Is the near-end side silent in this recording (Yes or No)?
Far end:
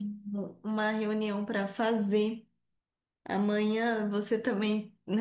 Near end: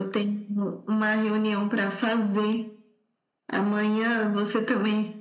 Yes